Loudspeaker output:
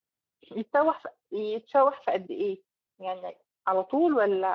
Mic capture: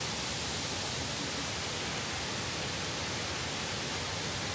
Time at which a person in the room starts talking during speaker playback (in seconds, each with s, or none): none